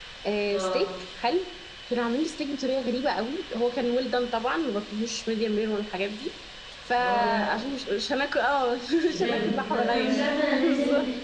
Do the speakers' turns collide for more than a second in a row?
Yes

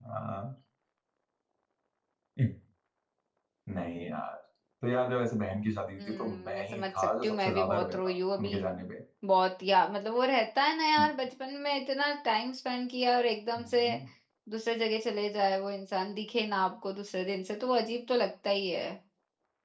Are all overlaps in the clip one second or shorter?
No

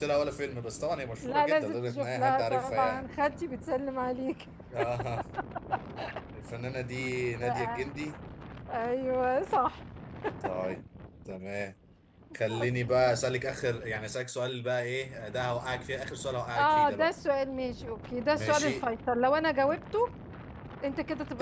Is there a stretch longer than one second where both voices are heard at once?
Yes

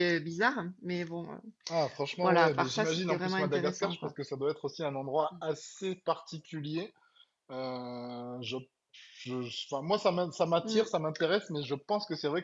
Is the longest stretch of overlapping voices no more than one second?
No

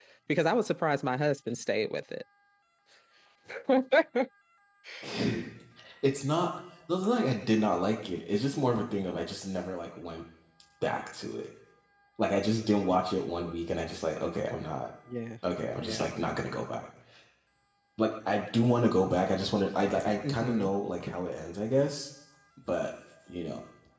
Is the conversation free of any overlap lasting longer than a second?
Yes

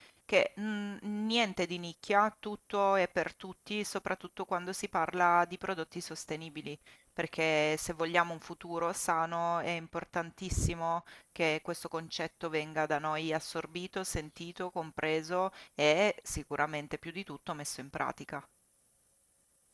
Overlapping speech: No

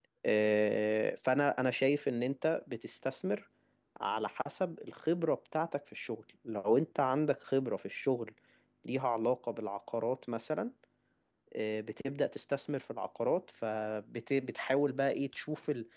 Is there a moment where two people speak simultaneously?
No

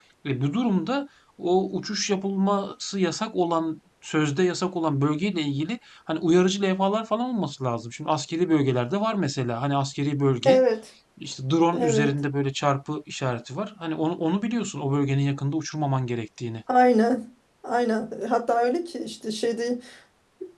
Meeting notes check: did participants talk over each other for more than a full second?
No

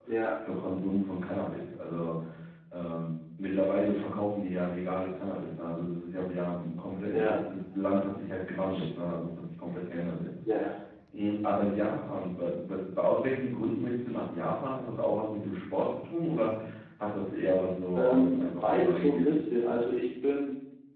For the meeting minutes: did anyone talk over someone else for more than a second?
Yes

